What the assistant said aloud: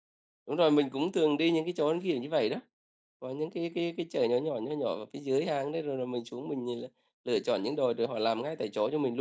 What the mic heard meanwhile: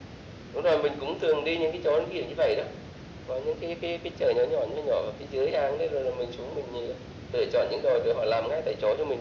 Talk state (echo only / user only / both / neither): echo only